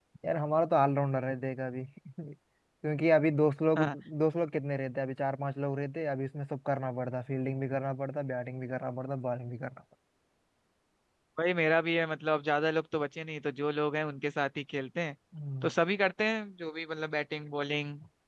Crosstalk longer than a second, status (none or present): none